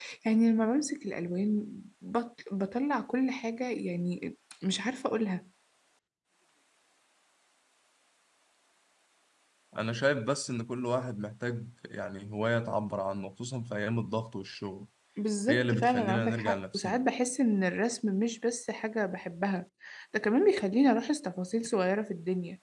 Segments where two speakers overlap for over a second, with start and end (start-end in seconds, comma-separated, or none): 15.5-17.0